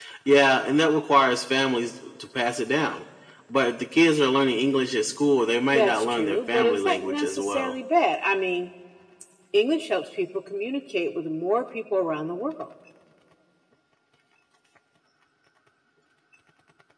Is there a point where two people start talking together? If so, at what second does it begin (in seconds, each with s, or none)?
5.7 s